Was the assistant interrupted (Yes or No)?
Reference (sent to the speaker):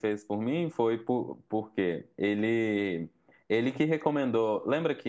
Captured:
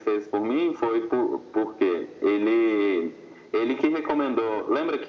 No